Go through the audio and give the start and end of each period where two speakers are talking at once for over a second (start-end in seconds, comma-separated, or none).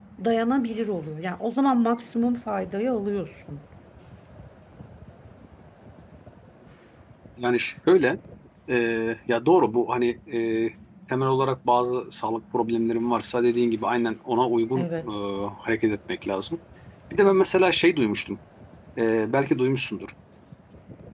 none